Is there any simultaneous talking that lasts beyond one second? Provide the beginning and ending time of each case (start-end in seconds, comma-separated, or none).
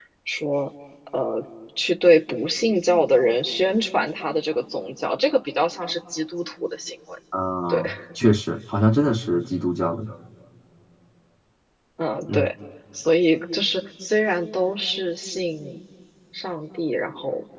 none